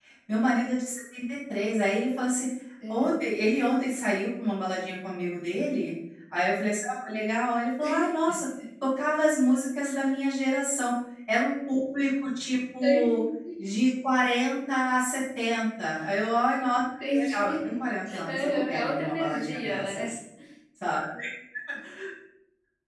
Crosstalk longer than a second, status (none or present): present